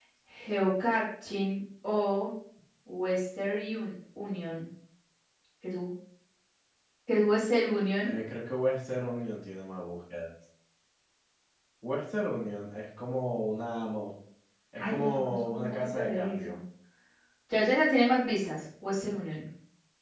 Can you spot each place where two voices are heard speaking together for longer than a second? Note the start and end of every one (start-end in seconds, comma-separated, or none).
14.8-16.6